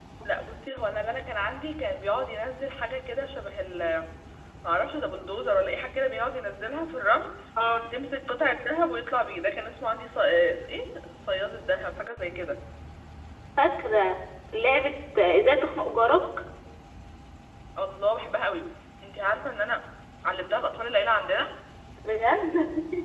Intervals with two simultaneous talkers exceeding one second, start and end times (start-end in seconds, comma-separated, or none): none